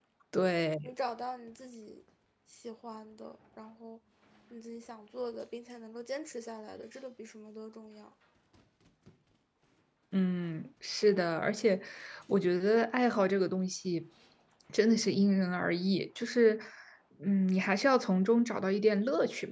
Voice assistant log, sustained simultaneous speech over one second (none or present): none